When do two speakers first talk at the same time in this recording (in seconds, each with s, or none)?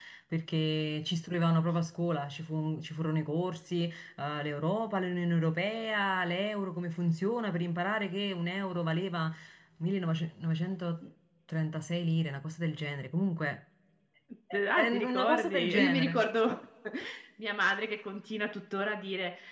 14.8 s